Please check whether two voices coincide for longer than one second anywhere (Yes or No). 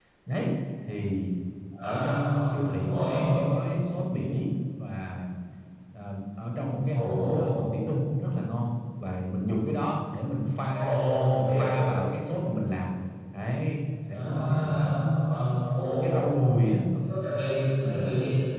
Yes